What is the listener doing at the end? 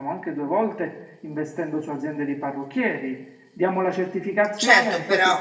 taking over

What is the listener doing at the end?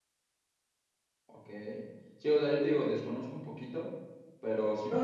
taking over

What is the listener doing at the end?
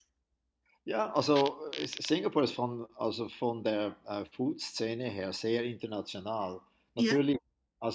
listening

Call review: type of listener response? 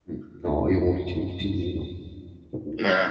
listening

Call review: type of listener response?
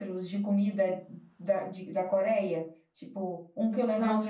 taking over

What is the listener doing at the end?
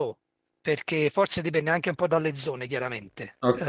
listening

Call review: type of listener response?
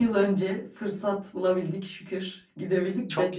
listening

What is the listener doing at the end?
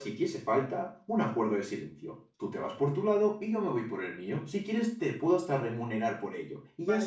taking over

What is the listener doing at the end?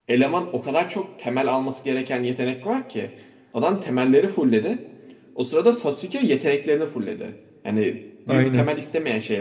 listening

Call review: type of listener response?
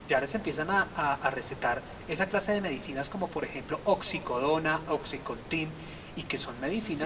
listening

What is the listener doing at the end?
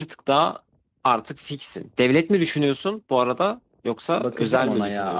taking over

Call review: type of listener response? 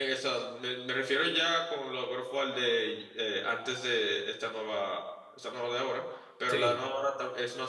listening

